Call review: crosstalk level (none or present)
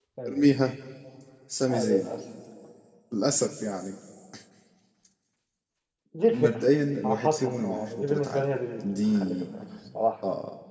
present